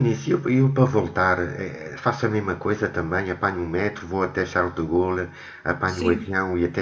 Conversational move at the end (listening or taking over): taking over